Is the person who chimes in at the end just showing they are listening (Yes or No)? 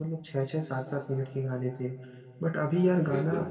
Yes